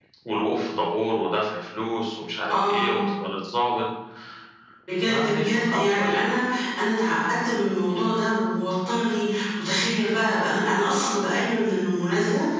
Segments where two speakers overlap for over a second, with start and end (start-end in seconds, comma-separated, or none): 5.1-6.3